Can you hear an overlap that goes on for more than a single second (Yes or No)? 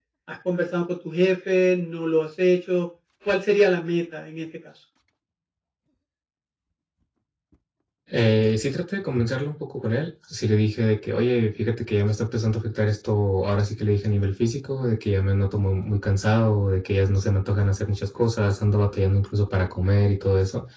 No